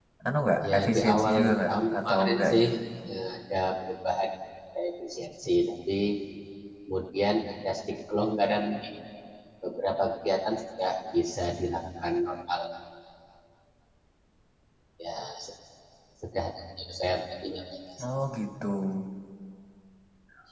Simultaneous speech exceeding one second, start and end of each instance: 0.7-2.6

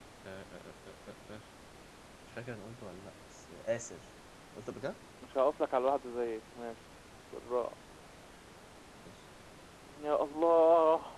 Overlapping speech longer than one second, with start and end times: none

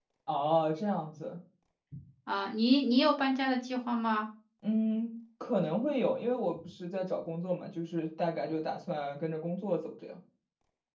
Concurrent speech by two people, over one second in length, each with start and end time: none

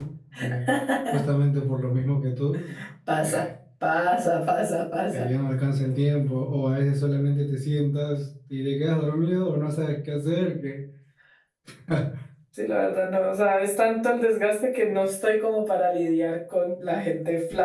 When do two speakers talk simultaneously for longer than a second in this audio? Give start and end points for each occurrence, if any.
none

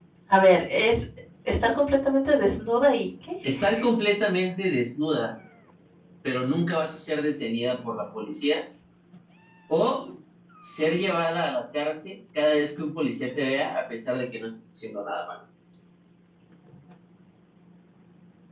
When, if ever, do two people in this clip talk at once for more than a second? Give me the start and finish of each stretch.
none

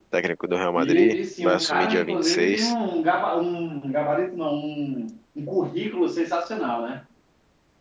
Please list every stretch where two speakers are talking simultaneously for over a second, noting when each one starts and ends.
0.8-2.7

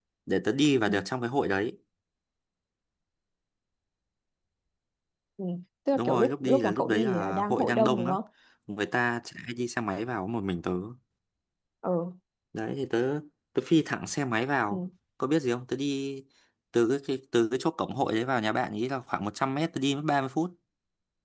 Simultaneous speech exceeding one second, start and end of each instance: 6.0-8.2

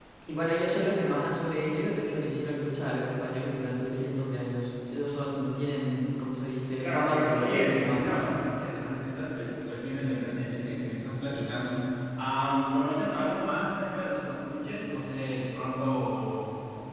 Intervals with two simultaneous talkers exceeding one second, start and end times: 6.8-8.3

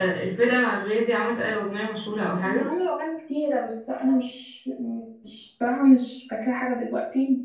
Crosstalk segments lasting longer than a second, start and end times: none

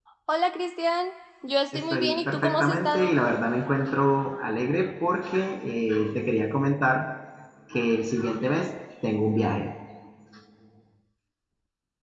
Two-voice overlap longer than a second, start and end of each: 1.7-3.1

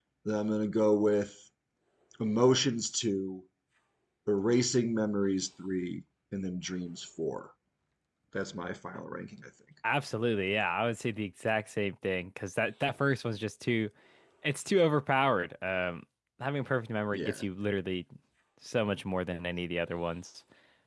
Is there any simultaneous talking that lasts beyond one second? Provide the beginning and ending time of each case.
none

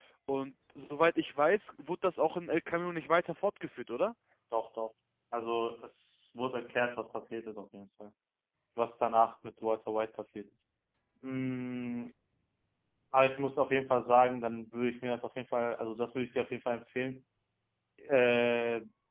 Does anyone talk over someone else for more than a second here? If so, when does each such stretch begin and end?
none

